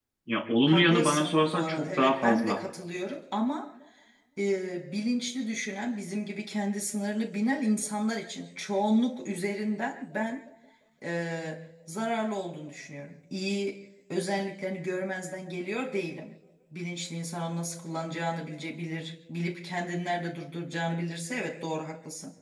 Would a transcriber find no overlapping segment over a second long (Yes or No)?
No